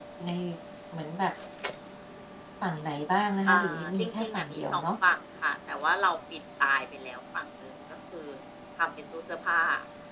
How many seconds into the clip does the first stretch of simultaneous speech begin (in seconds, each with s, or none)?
3.5 s